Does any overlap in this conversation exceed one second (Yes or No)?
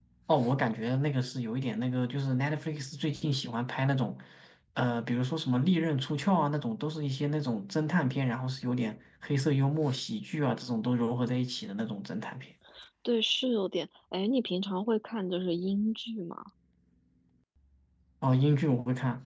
No